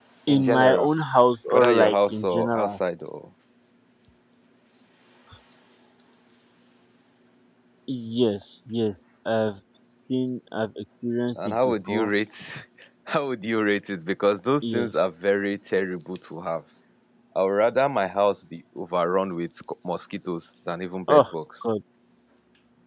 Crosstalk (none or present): present